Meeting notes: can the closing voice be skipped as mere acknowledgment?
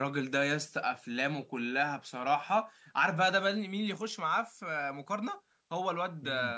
Yes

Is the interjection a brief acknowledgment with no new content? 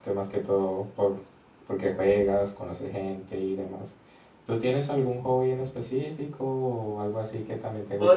No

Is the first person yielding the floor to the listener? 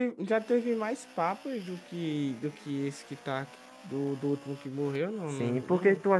Yes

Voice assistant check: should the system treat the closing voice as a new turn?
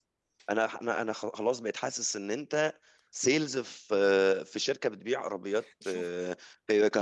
No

